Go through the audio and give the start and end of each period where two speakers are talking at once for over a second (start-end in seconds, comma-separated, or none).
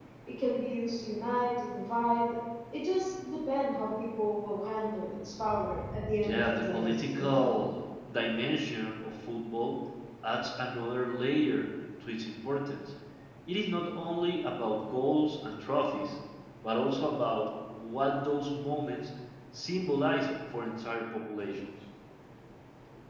6.2-7.5